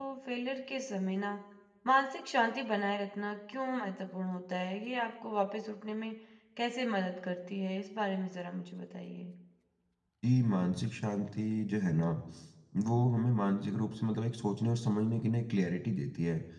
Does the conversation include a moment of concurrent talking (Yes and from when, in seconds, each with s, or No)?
No